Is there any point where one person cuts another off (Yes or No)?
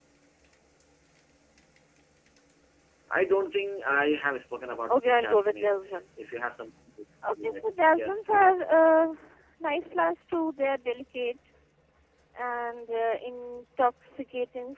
Yes